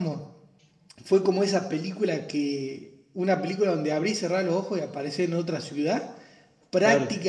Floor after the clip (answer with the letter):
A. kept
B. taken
A